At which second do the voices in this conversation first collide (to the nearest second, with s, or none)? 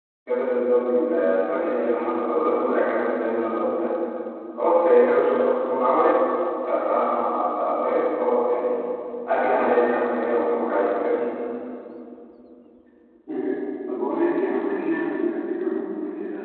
none